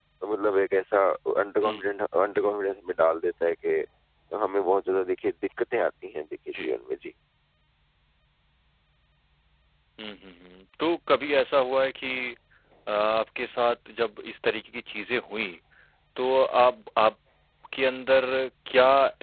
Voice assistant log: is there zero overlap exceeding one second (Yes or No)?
Yes